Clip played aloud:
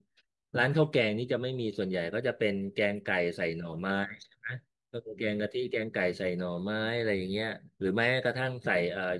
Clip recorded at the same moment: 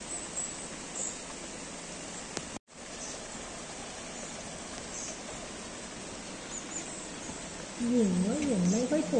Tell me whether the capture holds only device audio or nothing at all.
No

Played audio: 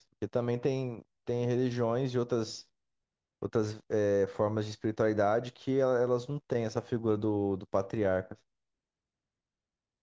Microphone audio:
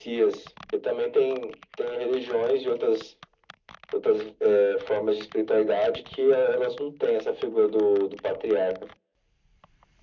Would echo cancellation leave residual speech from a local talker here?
No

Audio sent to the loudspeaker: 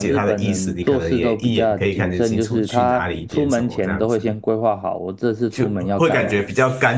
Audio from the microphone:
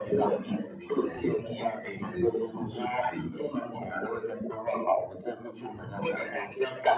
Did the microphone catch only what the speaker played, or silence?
Yes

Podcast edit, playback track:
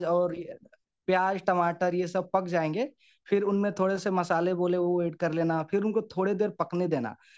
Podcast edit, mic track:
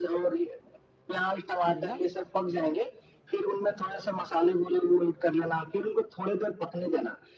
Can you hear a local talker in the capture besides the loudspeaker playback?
Yes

